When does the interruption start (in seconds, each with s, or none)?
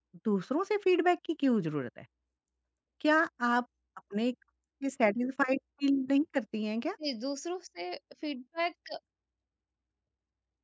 none